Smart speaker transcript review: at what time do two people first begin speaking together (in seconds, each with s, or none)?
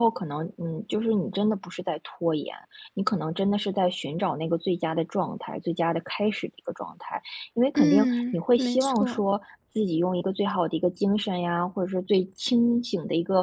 7.8 s